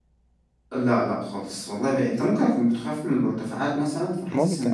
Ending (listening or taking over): taking over